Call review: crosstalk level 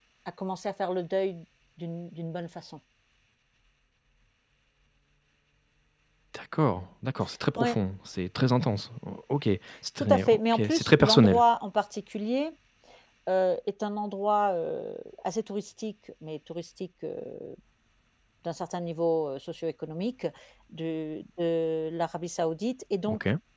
present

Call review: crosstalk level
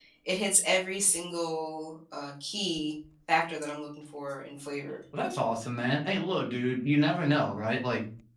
none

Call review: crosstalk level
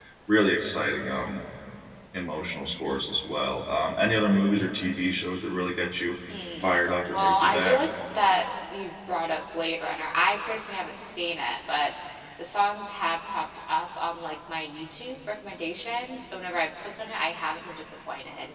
present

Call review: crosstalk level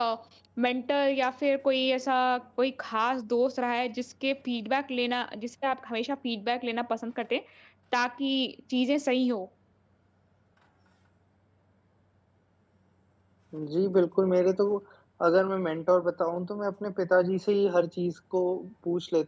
none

